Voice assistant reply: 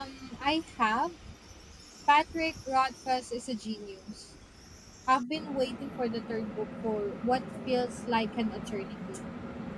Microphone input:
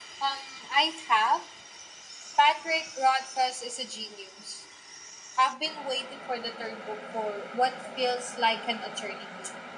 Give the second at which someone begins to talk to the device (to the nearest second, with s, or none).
none